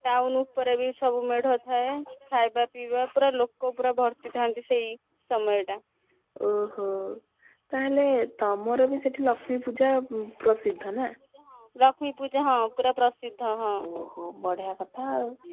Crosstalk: none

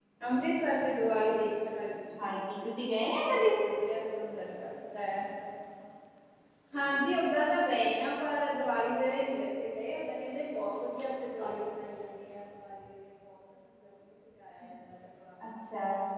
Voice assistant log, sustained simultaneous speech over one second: none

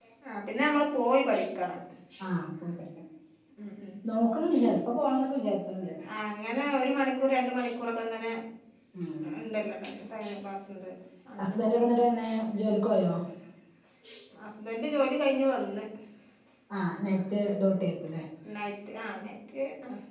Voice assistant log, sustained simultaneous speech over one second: none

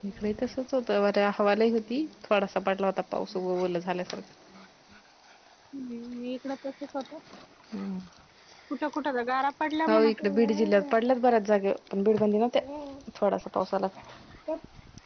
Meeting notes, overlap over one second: none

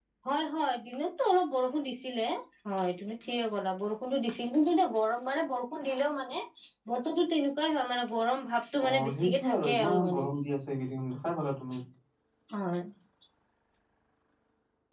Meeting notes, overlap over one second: present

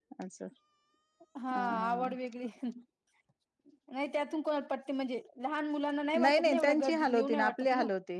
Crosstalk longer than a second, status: present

